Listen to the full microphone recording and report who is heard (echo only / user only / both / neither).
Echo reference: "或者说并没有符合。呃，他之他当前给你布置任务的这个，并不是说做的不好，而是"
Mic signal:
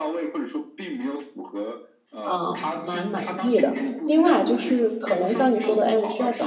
both